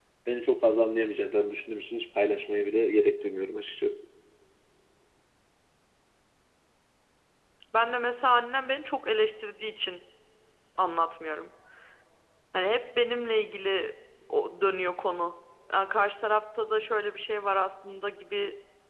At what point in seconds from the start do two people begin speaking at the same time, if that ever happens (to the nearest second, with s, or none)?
none